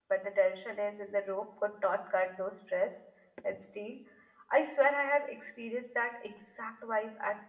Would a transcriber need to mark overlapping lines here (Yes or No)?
No